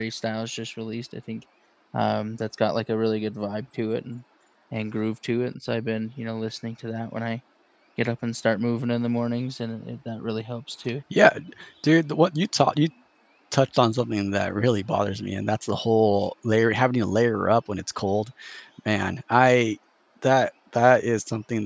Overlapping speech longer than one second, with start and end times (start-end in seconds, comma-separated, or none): none